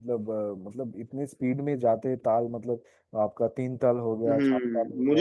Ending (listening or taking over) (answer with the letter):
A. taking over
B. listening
A